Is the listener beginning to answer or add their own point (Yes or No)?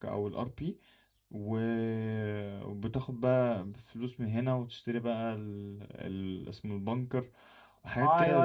Yes